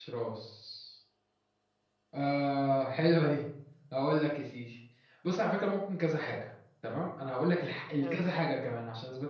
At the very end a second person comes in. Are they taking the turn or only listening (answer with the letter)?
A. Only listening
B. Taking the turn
A